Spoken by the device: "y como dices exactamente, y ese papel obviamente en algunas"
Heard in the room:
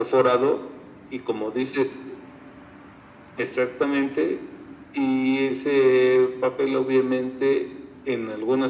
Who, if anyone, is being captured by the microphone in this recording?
echo only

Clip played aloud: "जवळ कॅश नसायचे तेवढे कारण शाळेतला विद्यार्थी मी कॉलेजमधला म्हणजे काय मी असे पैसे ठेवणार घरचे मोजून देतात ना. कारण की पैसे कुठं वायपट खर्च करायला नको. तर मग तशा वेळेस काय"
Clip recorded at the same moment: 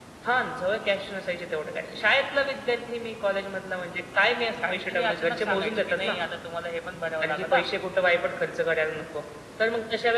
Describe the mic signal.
both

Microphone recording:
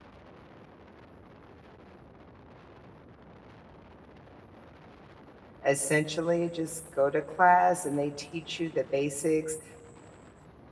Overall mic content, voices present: user only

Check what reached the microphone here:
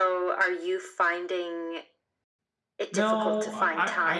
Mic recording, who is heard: both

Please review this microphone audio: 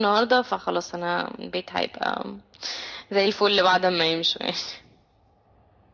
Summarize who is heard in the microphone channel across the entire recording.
echo only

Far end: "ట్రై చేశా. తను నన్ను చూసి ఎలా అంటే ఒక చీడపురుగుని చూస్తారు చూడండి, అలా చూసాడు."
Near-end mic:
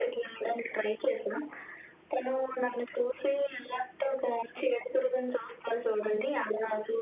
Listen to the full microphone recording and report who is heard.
echo only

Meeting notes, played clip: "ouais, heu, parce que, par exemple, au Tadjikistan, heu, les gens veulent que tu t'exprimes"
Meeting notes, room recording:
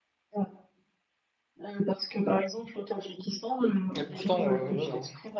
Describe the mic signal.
both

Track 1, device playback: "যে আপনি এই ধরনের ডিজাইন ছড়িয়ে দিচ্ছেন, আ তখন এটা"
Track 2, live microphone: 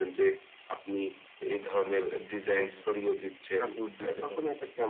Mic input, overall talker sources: both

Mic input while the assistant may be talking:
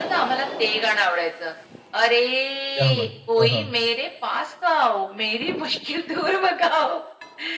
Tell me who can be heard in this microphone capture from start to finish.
both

